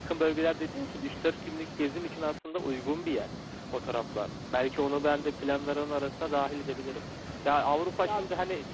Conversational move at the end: listening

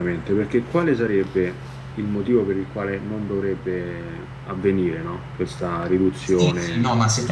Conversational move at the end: taking over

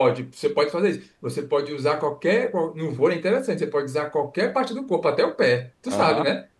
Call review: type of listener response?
taking over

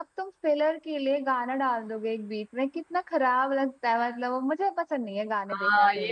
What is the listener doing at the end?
taking over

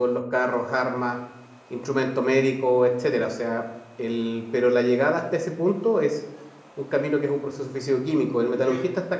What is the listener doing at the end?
listening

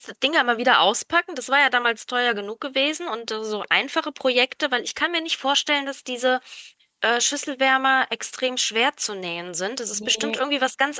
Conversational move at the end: listening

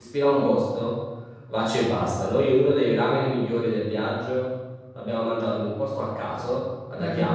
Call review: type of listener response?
listening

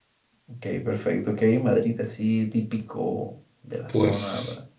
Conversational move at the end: taking over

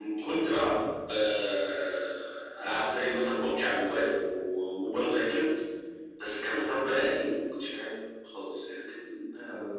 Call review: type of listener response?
taking over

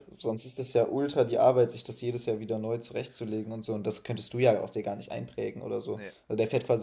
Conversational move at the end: listening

